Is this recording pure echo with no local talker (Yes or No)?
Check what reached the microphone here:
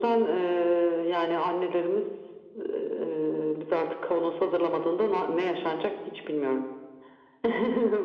Yes